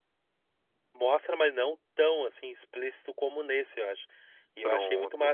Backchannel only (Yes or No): Yes